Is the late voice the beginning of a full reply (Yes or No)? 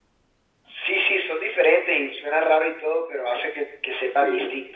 Yes